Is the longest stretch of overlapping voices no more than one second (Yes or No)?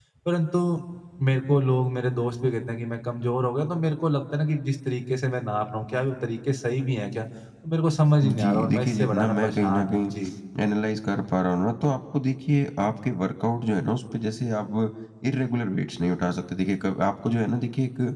No